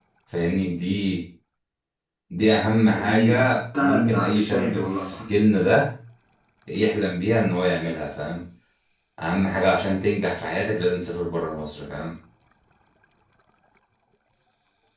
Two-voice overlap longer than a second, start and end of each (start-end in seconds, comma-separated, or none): 2.9-5.2